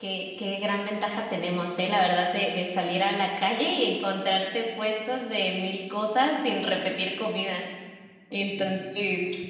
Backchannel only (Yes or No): Yes